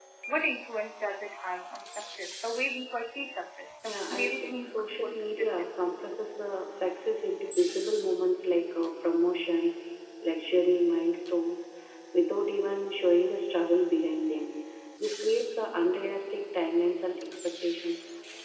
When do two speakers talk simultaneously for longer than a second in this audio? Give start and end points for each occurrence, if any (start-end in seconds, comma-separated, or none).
3.9-5.7